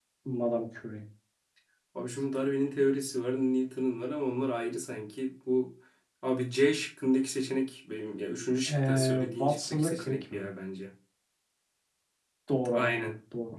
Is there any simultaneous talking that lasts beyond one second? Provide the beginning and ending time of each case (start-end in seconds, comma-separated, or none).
8.7-10.5